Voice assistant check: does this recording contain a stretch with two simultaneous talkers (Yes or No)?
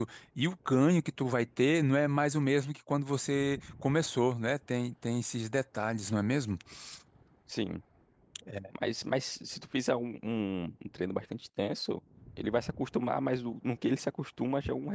No